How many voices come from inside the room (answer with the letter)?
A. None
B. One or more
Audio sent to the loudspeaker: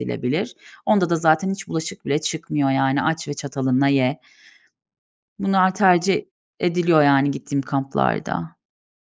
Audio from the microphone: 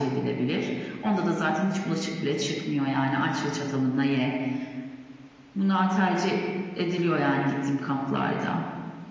A